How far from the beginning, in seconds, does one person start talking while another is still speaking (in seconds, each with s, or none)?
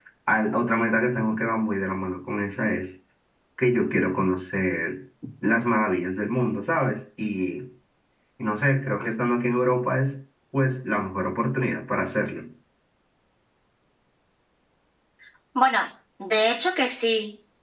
none